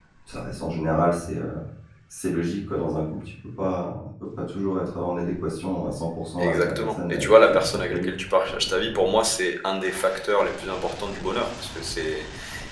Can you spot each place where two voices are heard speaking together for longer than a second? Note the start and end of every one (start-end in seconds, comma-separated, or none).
6.4-8.1